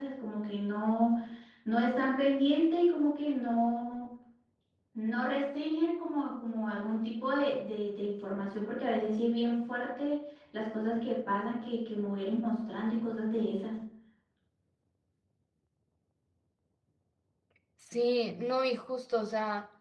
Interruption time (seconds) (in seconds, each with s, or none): none